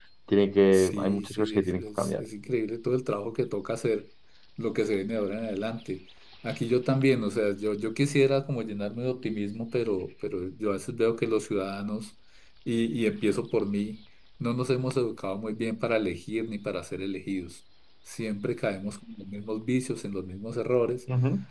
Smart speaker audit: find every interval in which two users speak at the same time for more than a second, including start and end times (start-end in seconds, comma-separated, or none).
0.7-2.2